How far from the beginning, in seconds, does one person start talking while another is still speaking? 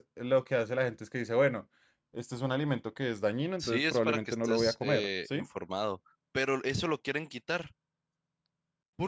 3.6 s

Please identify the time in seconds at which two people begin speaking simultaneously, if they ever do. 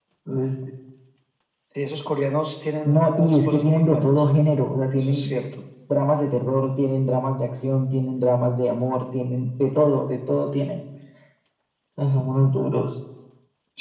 2.9 s

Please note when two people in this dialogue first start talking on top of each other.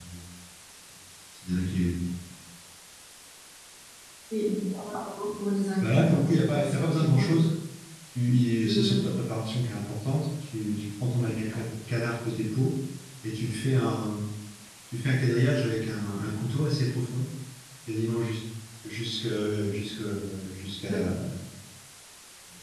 5.8 s

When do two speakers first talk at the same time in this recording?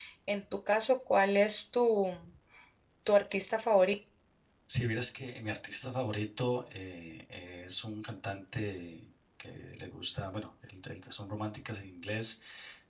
none

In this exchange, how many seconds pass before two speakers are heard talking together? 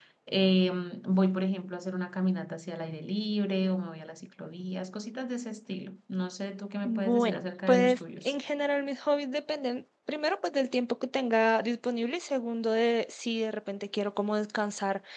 6.8 s

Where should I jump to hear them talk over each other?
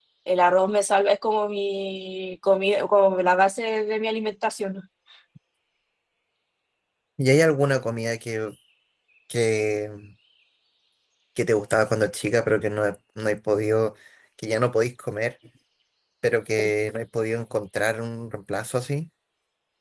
none

